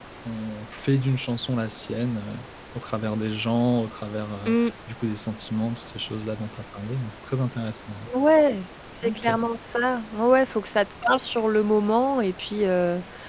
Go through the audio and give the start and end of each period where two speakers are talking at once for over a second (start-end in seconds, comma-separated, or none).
none